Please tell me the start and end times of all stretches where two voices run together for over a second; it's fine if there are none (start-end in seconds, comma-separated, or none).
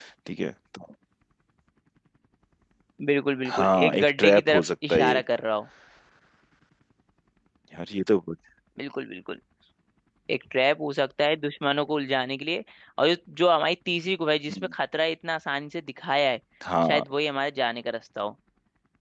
3.5-5.2